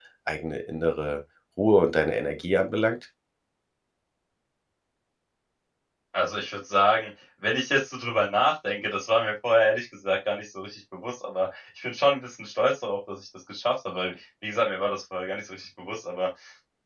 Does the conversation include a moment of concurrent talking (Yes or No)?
No